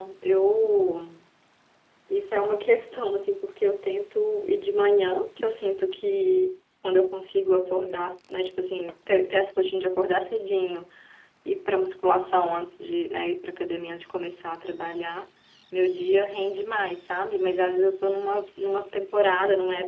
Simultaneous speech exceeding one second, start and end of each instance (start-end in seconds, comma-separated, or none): none